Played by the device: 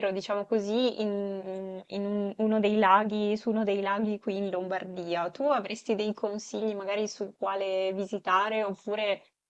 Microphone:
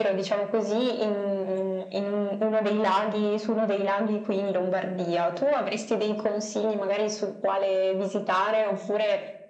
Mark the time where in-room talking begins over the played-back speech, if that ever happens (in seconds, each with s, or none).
none